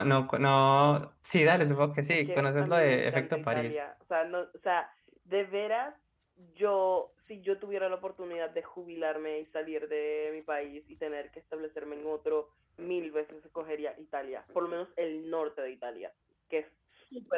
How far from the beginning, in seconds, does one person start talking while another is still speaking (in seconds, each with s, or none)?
2.3 s